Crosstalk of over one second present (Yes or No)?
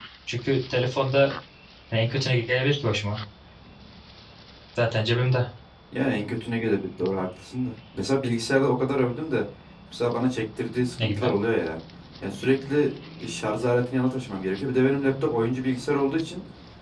No